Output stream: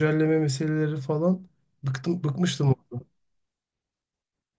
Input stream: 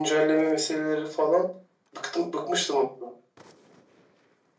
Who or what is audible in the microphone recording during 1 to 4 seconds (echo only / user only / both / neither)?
echo only